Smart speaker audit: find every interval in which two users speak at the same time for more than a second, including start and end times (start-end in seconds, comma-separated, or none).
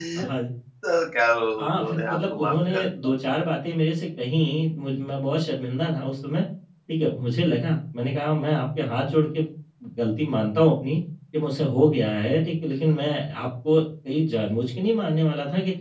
1.6-3.1